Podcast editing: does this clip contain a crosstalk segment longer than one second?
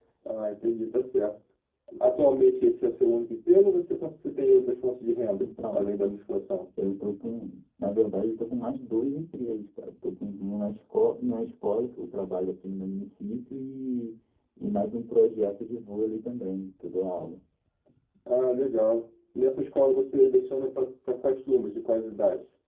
No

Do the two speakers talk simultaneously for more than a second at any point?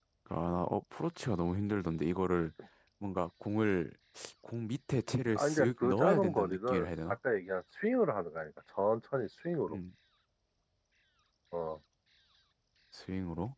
Yes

